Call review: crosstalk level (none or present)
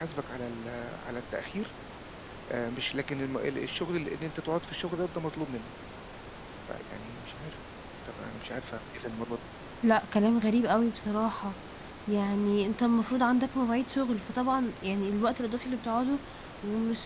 none